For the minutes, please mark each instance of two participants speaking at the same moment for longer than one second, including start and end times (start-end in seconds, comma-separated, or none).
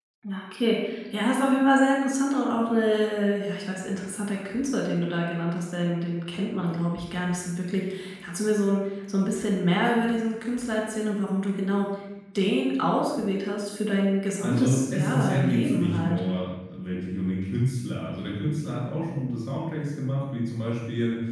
14.4-16.2